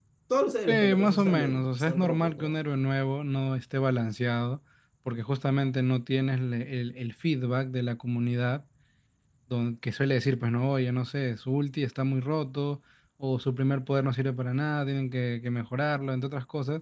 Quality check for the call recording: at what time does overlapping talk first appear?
0.7 s

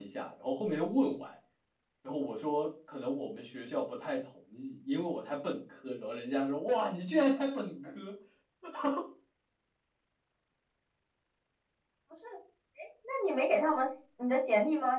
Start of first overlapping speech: none

